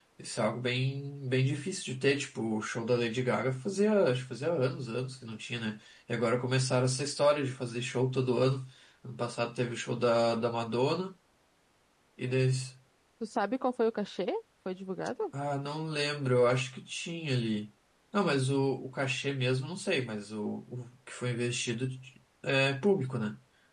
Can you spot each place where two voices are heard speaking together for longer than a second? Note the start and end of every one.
none

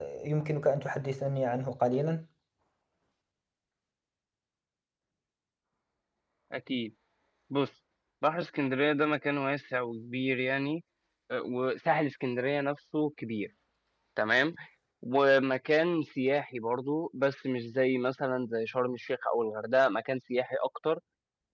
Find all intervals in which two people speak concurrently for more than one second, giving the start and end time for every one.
none

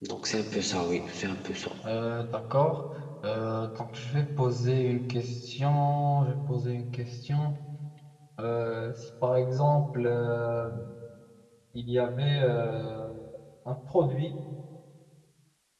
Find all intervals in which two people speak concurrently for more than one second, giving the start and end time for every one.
none

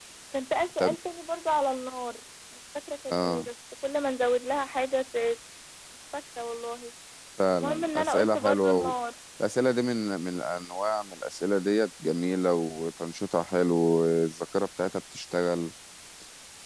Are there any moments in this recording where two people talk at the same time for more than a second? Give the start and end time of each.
7.6-8.9

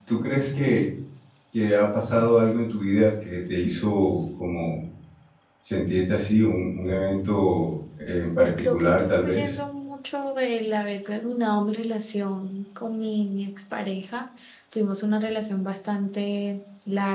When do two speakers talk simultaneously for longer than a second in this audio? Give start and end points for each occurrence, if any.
8.4-9.6

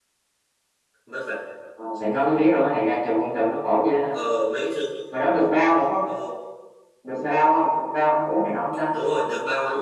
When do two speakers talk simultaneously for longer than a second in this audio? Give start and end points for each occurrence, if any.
none

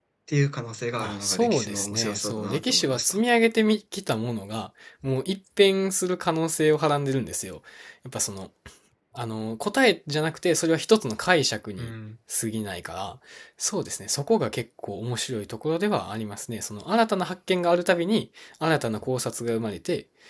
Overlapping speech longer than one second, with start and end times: 1.0-3.2

